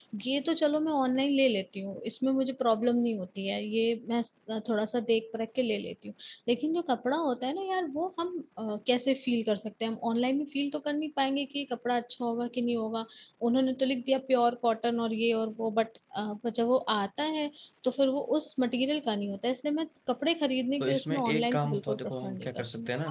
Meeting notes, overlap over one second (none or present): present